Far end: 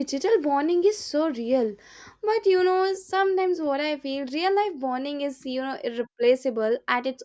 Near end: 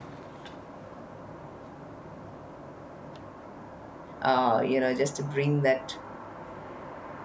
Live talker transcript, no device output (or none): uh, you know, just to bring that